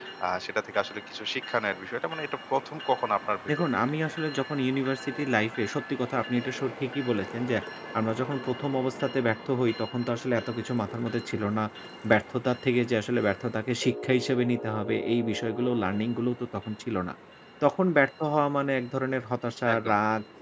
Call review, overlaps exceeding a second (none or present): none